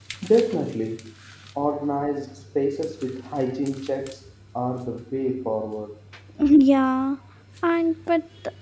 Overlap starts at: none

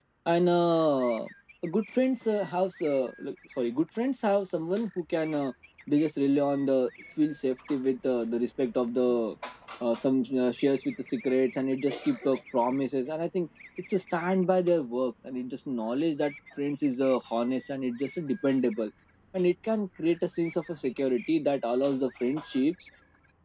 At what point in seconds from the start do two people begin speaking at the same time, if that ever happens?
none

